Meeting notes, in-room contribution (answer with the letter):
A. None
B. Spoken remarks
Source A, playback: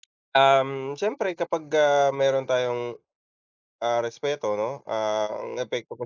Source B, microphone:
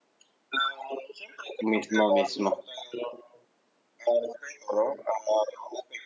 B